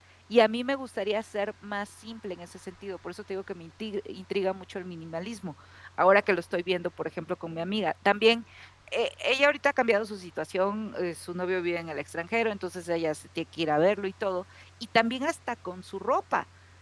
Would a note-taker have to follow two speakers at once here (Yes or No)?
No